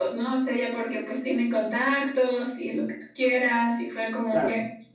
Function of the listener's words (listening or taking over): listening